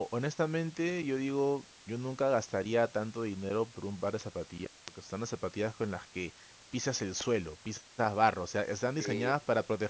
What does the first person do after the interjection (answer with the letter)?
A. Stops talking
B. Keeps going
B